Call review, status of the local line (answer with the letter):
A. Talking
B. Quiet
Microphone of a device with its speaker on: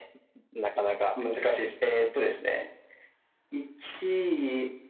B